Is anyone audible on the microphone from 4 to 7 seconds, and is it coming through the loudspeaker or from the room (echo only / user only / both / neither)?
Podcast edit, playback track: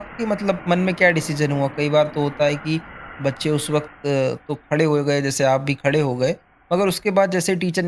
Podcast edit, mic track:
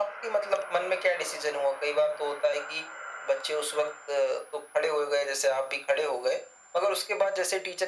echo only